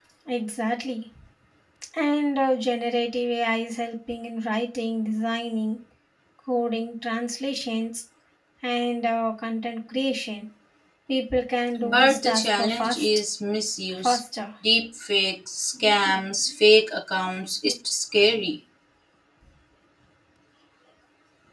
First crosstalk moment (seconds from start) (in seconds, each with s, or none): 11.8 s